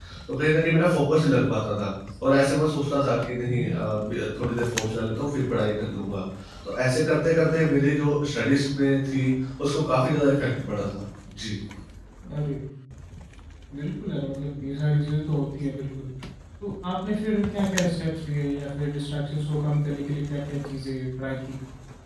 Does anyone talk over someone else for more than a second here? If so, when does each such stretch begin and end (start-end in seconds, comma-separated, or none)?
none